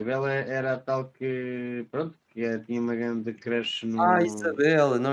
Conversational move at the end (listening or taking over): taking over